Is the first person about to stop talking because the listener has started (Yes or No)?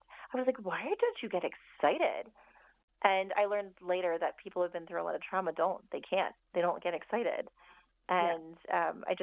No